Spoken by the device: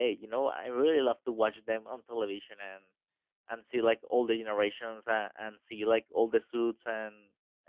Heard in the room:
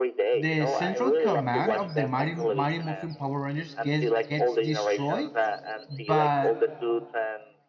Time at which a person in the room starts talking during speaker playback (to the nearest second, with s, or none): 0 s